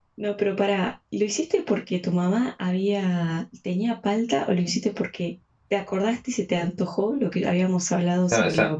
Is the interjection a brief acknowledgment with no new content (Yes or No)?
No